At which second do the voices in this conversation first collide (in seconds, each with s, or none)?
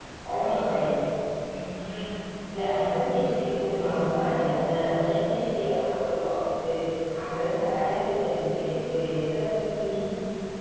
2.6 s